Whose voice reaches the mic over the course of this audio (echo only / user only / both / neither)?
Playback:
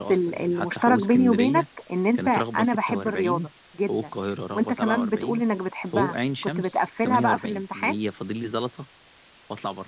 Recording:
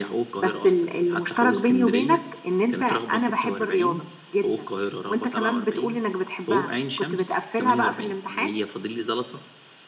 echo only